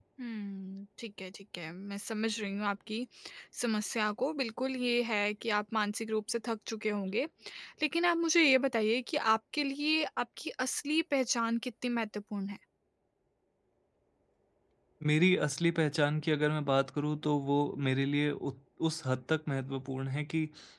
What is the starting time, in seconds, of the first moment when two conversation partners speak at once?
none

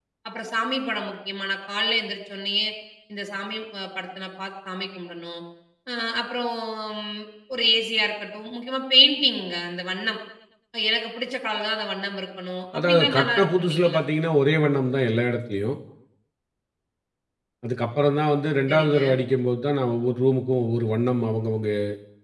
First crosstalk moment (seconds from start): 12.8 s

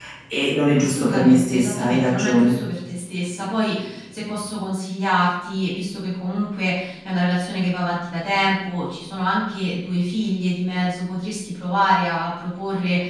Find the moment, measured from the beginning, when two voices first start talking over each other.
0.8 s

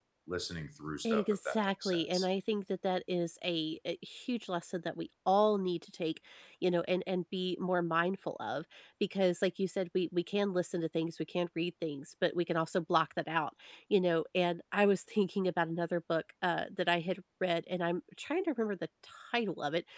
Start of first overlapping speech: 1.1 s

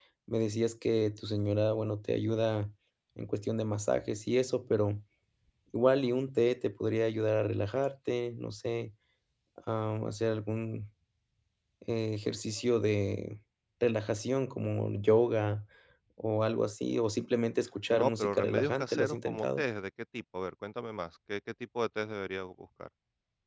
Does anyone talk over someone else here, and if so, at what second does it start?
17.9 s

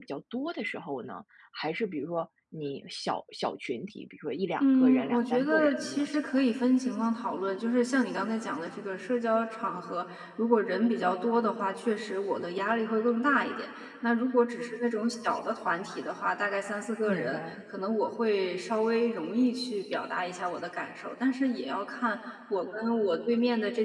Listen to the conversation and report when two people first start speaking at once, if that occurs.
4.6 s

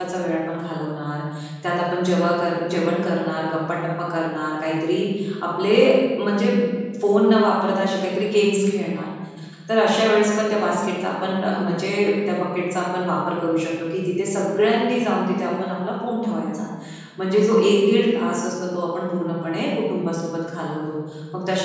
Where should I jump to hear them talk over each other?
none

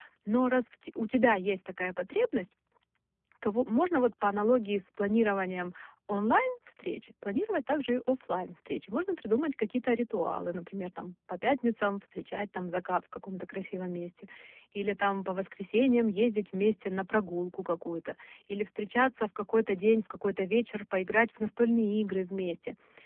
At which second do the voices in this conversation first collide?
none

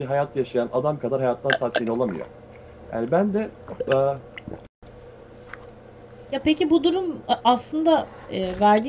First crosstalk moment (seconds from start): none

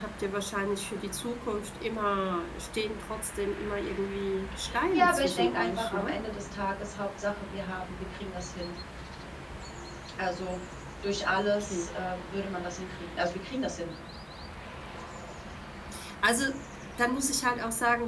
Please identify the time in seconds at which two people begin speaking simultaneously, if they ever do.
4.9 s

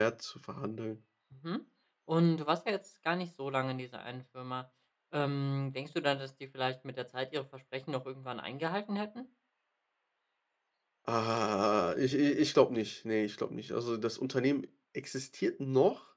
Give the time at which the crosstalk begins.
none

